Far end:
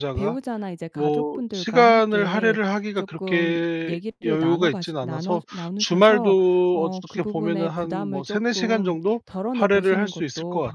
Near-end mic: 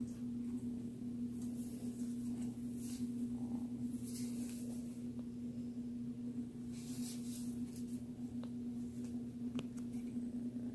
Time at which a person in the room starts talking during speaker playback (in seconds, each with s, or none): none